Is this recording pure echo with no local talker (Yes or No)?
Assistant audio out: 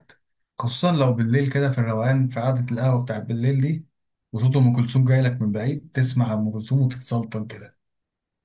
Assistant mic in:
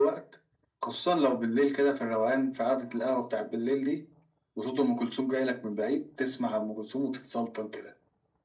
Yes